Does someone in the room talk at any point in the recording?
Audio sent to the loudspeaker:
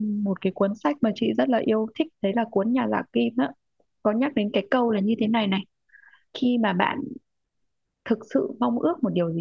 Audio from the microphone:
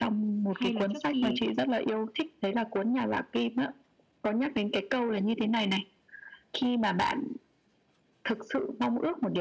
Yes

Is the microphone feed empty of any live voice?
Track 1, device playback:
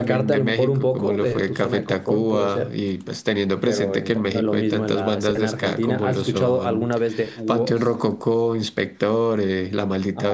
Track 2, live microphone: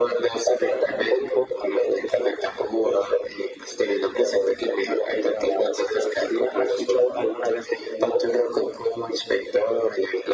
Yes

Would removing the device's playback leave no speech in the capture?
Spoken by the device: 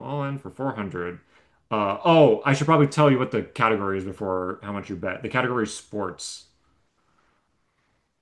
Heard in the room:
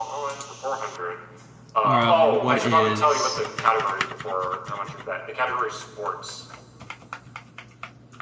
No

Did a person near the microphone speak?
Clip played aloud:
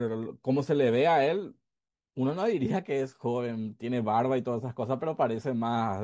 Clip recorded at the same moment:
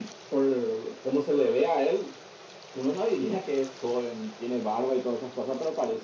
No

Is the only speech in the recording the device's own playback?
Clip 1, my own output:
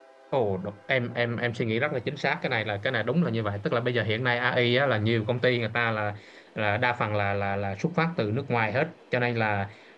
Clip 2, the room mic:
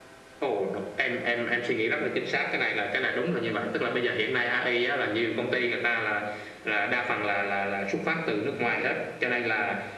Yes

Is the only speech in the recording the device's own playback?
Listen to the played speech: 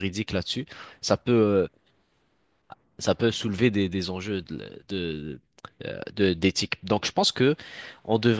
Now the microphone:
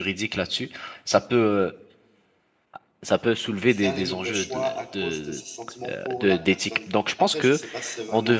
No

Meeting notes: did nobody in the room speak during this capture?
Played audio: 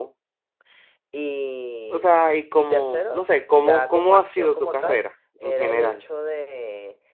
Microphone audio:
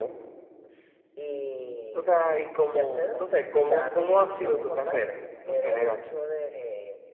Yes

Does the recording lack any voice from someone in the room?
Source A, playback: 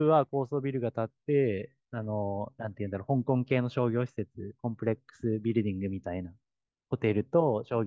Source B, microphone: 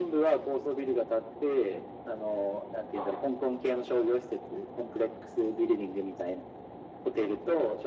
Yes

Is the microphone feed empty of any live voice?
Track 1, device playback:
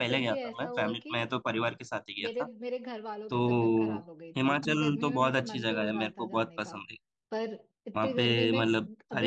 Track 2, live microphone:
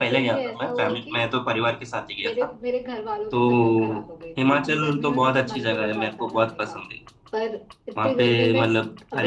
Yes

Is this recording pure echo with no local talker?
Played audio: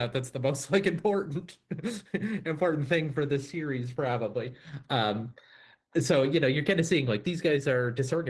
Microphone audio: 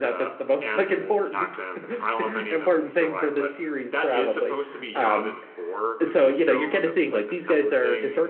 No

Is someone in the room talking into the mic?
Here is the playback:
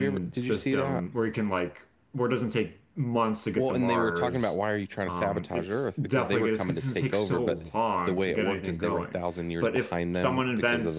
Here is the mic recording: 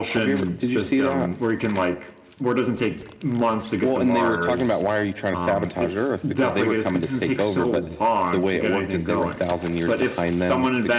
No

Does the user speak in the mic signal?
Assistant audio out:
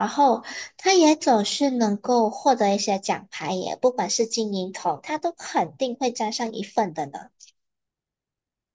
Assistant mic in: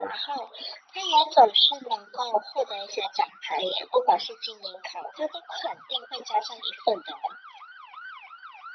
No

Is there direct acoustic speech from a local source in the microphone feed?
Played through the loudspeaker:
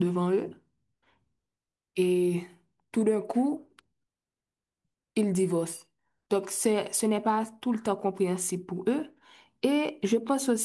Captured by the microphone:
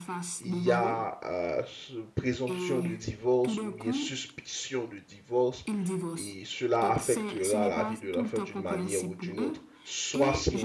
Yes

